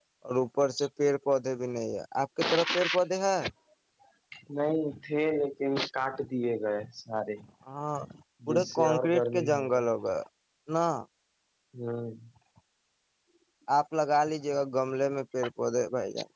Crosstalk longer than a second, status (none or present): present